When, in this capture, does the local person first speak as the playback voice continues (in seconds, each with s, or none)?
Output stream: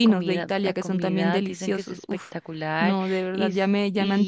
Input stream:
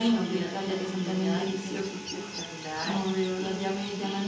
none